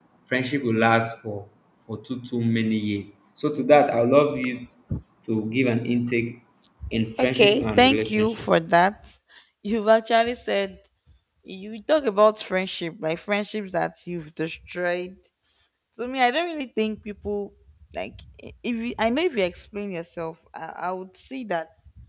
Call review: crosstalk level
present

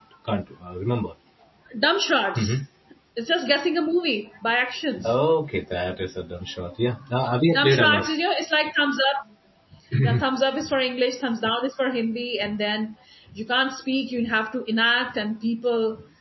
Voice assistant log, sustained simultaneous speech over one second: none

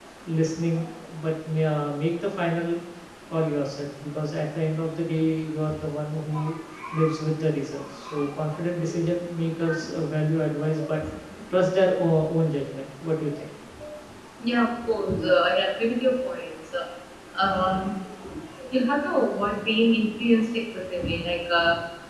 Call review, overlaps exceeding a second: none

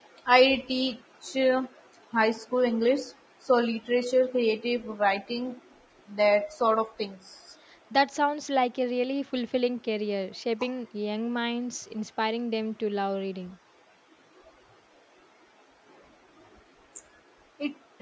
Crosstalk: none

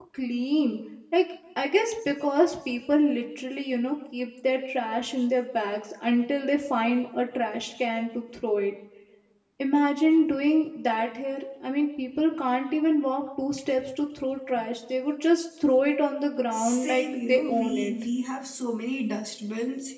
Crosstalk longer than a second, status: present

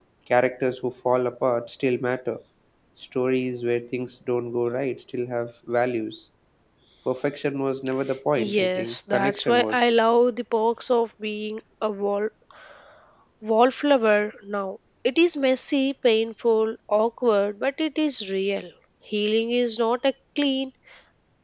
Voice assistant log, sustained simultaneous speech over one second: present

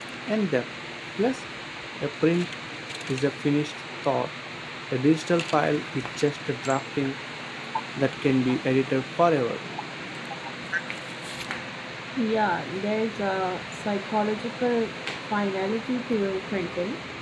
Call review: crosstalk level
none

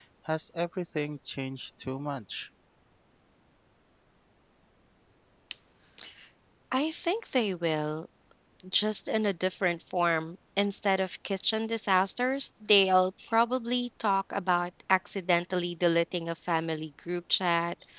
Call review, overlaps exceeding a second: none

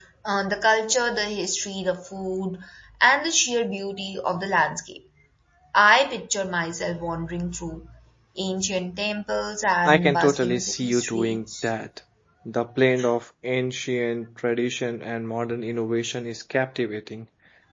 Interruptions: present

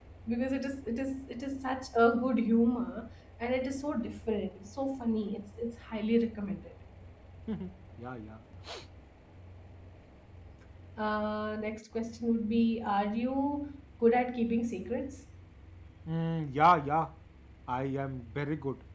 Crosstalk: none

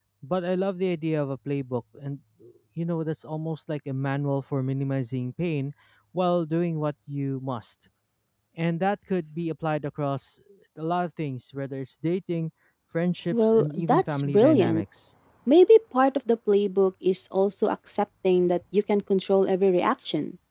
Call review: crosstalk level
present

